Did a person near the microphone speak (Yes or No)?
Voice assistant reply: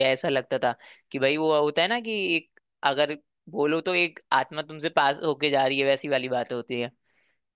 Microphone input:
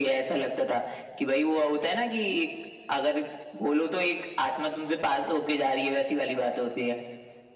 No